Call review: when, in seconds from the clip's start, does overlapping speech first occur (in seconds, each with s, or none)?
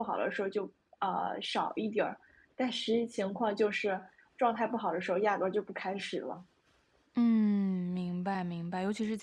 none